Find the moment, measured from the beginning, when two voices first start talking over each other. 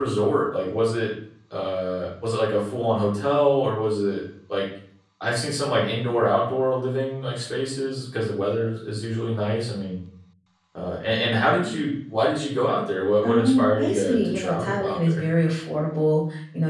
13.2 s

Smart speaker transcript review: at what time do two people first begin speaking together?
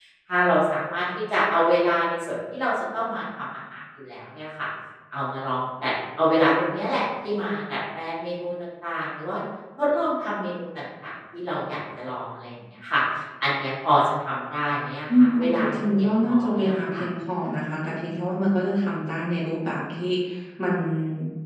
15.1 s

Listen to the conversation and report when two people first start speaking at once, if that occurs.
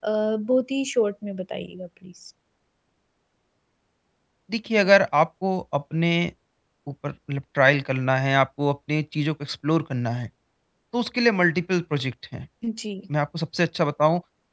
none

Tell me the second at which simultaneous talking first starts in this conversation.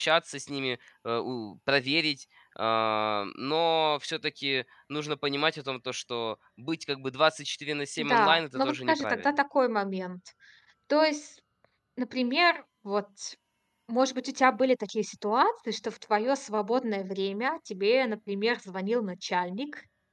8.0 s

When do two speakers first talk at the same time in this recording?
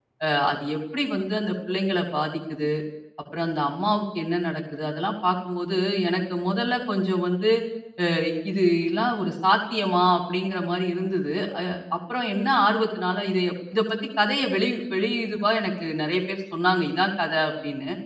none

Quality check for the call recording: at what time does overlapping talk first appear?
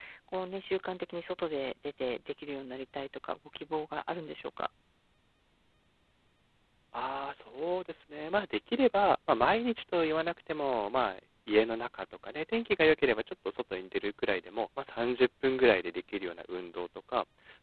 none

